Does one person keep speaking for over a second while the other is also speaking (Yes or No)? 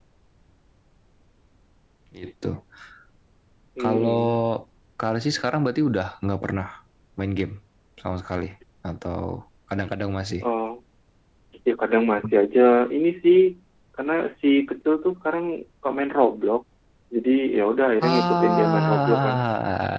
Yes